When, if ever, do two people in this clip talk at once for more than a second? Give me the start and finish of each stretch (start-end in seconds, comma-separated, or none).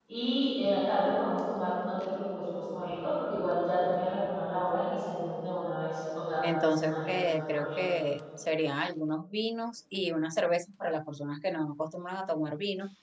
6.5-7.9